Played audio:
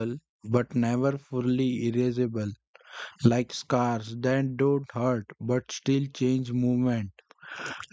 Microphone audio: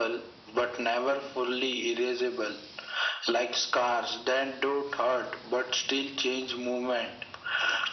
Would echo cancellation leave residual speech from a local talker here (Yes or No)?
No